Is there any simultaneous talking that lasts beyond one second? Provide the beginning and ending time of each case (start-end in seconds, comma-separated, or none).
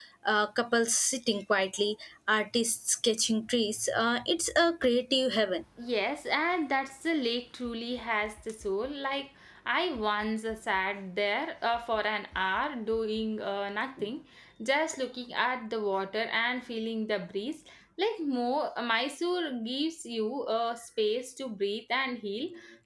none